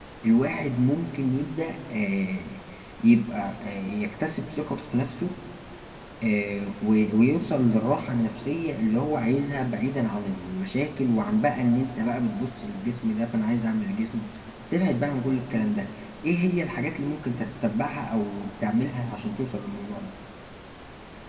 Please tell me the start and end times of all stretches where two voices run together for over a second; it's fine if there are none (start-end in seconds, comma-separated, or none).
none